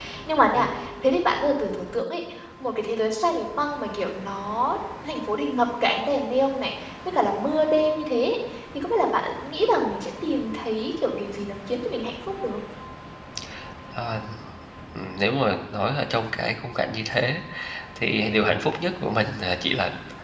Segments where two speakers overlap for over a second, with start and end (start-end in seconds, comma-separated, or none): none